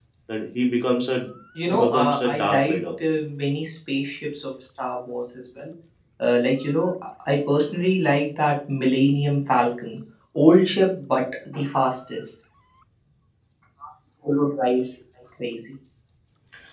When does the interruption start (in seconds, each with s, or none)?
1.6 s